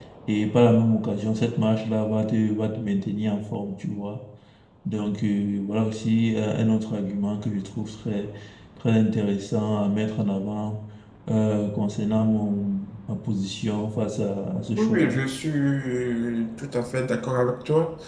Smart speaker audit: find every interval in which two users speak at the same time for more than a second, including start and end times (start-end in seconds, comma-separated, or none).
none